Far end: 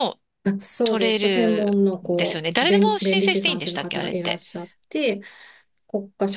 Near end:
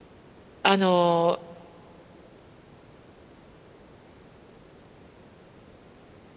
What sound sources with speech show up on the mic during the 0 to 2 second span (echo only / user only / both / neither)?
user only